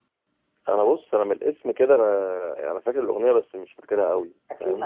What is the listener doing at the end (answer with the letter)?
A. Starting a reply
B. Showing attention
A